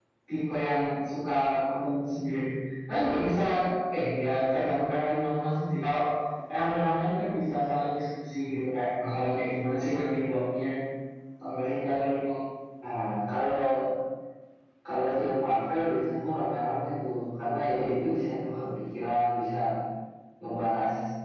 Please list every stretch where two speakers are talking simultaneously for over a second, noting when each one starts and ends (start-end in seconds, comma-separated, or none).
none